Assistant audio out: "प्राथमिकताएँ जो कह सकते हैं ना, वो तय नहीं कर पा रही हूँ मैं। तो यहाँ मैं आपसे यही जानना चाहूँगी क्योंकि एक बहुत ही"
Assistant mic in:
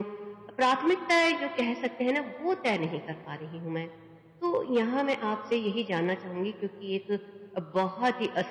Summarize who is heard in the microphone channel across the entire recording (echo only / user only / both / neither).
echo only